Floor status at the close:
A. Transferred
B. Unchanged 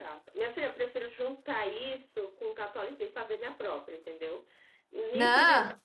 B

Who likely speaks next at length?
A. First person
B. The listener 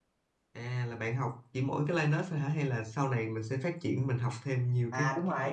B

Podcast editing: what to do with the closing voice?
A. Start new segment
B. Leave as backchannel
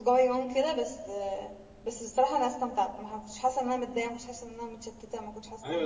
A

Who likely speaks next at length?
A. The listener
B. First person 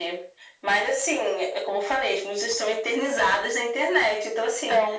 B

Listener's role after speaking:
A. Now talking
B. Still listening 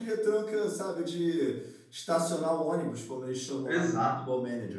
A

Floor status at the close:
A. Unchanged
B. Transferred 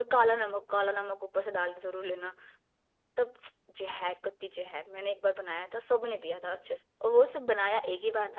A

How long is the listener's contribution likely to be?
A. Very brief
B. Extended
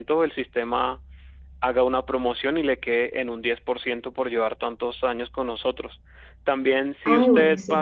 A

